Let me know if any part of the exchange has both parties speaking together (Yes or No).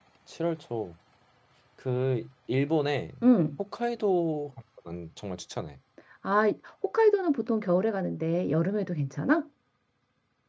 No